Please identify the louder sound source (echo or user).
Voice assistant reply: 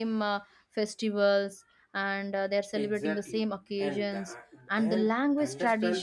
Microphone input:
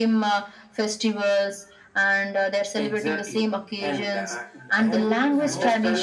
echo